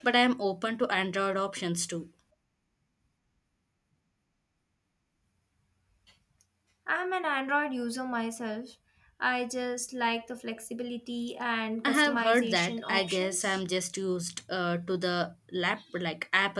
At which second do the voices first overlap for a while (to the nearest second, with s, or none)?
12 s